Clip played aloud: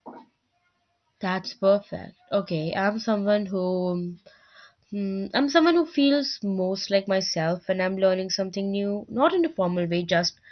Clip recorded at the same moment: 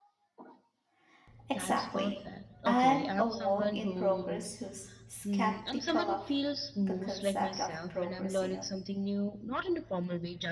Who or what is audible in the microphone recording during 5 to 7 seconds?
both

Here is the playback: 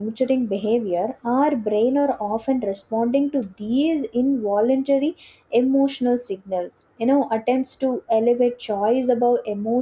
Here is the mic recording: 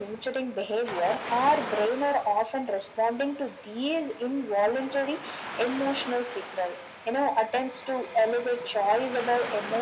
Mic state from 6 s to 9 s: echo only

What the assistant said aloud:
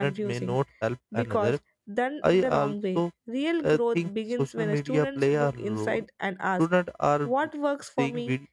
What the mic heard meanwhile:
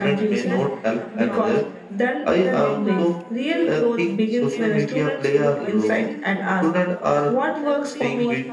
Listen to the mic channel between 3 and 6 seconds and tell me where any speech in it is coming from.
both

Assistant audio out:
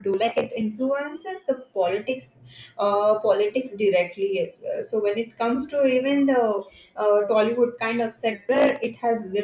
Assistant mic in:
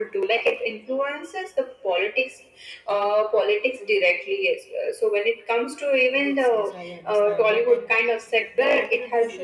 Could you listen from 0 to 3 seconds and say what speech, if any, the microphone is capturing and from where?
echo only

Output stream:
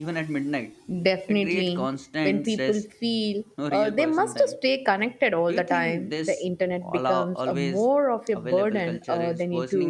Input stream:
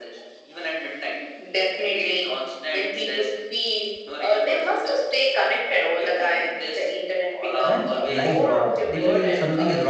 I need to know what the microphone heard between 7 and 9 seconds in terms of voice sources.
both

